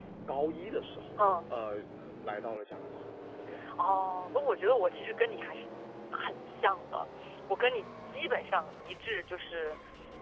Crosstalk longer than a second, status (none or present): none